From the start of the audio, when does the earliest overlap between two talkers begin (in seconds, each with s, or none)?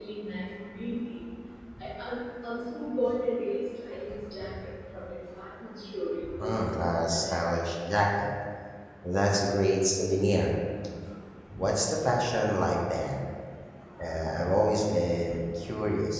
6.4 s